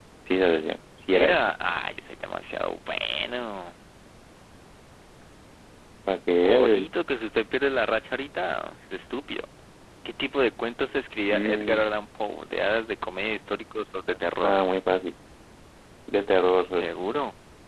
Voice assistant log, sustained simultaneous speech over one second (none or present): none